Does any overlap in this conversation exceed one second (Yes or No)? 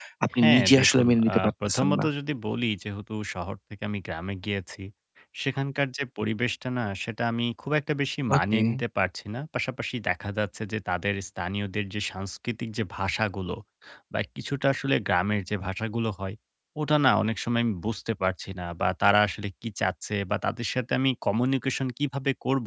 Yes